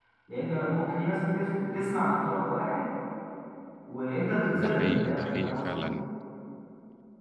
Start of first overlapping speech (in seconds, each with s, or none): 4.5 s